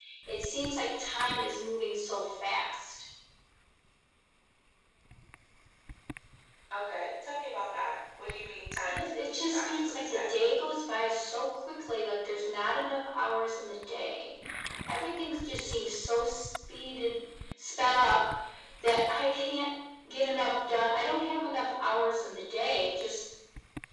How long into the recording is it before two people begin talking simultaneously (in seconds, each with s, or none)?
8.9 s